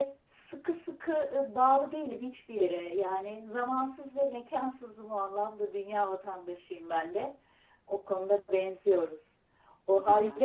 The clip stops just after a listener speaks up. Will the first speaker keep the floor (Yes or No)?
Yes